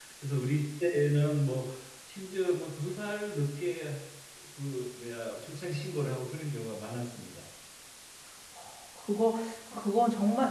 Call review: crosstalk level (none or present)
none